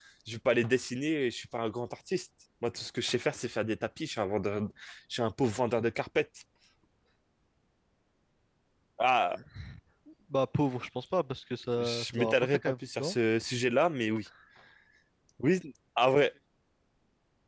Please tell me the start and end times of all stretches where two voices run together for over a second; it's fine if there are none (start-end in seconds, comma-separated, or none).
11.8-13.2